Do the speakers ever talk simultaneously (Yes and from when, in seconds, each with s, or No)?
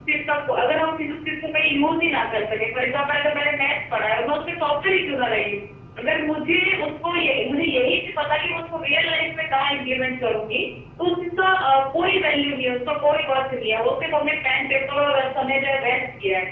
No